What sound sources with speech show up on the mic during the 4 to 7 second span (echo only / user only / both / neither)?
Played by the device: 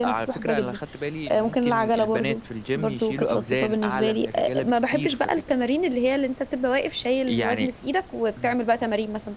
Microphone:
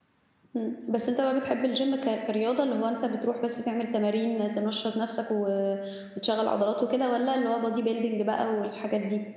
user only